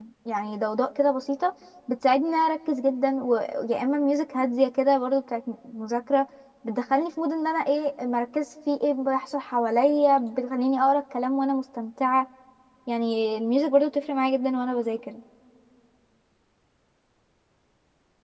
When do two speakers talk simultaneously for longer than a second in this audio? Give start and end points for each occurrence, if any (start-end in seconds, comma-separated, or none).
none